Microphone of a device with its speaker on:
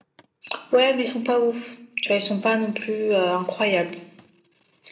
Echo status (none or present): present